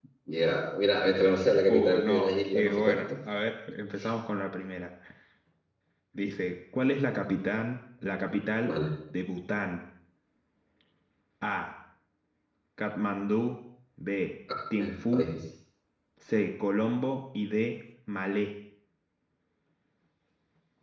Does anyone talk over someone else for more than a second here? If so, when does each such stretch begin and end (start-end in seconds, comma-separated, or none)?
1.7-3.1